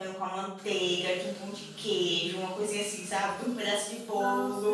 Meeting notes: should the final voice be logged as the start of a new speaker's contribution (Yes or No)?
Yes